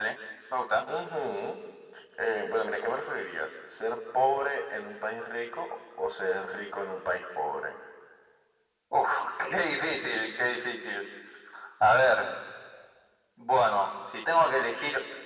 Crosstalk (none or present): none